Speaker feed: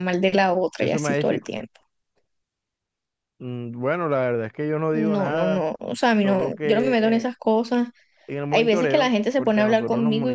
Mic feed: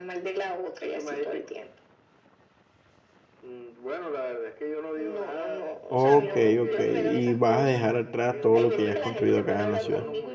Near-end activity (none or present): present